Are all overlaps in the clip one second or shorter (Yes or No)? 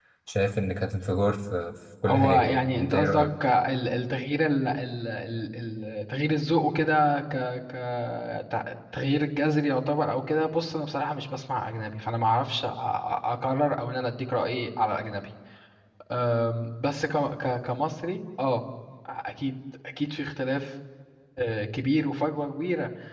No